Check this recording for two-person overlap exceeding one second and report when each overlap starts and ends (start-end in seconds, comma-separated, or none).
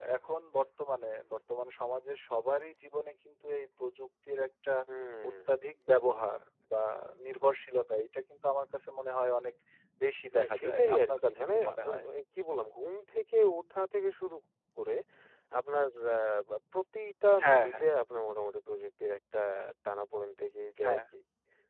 10.4-11.7